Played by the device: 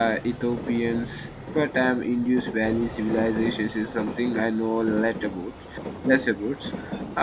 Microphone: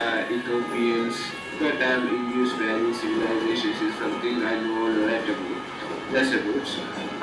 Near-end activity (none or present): none